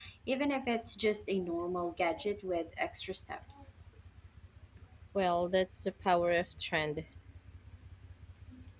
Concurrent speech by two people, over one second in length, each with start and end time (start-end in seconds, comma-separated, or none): none